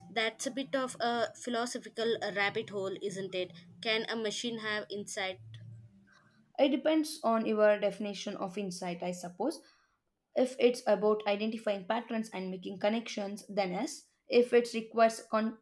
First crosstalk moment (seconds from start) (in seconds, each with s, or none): none